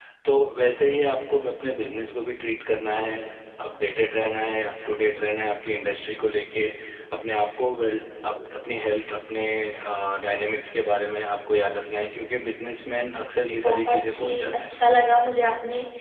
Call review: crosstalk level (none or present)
present